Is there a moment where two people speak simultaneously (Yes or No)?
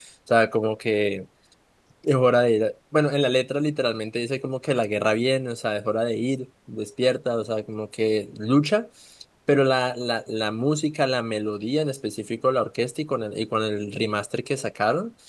No